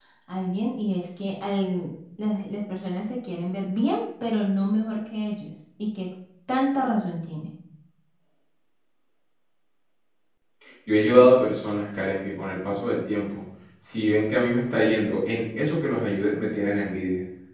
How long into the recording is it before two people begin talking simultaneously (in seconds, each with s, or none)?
none